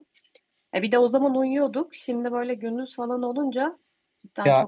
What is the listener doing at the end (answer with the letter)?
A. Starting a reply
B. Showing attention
A